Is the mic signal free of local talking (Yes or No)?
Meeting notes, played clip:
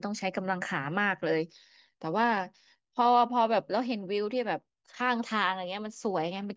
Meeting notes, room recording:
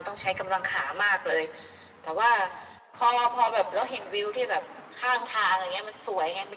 Yes